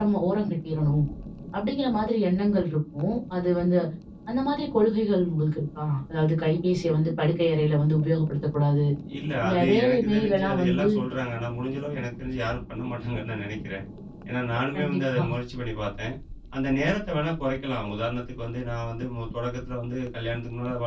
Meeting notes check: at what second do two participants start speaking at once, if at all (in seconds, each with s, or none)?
9.5 s